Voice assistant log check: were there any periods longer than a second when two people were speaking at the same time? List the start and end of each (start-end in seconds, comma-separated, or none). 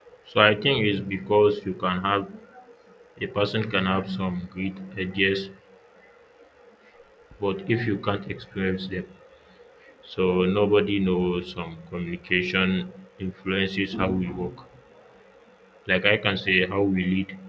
none